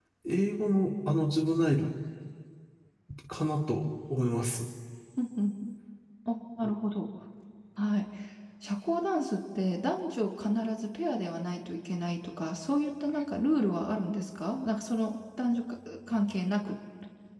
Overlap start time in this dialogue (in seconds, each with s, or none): none